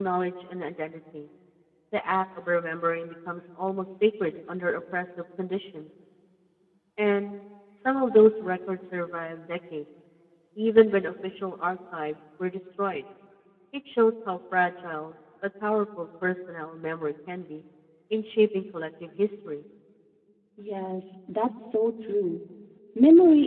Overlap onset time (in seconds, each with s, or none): none